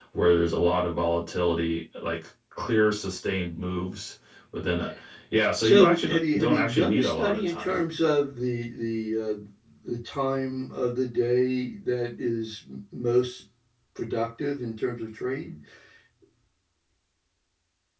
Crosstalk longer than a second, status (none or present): present